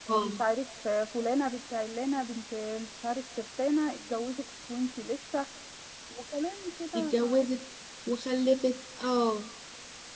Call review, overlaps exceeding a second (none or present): none